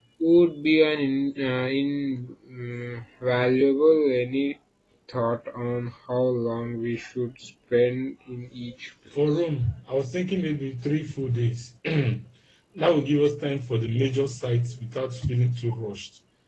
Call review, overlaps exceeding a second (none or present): none